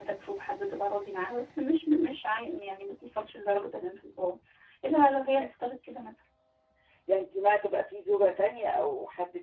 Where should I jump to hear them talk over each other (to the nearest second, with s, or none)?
none